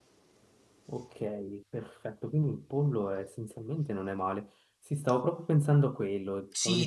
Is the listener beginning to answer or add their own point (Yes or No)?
Yes